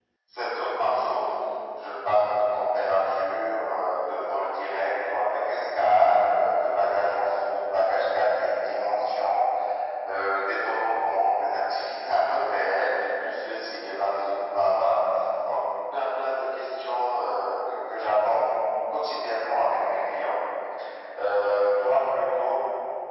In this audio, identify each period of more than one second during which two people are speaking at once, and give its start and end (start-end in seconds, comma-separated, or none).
none